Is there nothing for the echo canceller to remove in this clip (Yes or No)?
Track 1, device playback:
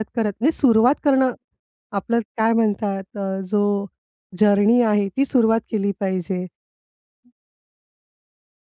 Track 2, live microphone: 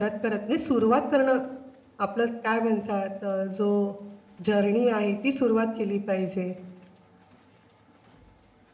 No